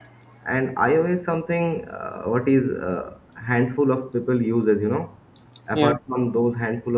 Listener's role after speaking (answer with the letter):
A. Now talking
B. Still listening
B